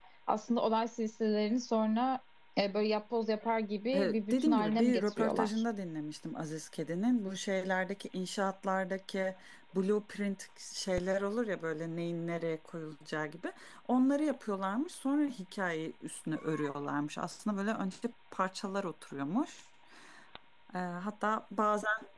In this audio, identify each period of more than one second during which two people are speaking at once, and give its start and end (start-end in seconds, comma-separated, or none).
3.9-5.5